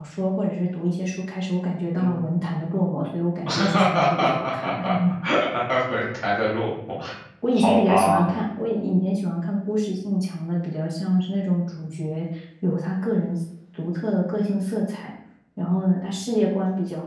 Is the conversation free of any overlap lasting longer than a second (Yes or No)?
No